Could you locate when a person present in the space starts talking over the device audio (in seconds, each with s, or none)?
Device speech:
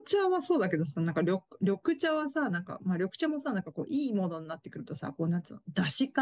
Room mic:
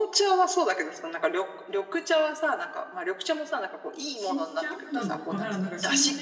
4.1 s